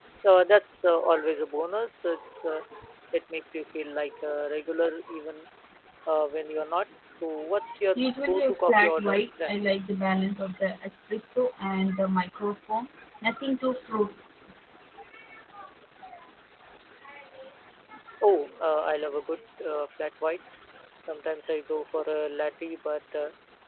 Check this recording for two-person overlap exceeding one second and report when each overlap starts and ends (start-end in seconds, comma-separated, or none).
8.0-9.6